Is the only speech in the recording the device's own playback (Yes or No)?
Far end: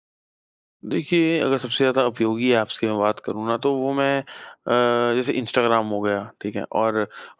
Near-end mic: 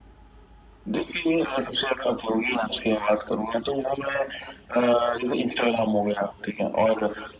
Yes